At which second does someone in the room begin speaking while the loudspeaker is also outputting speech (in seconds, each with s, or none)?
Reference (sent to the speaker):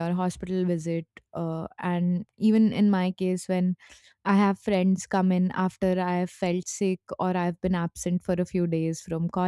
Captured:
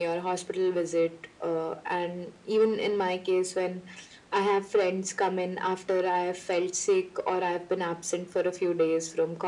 none